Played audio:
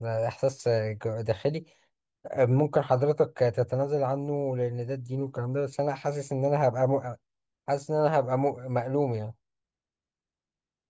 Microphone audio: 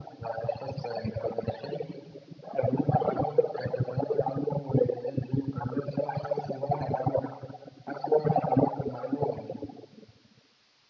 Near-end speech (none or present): none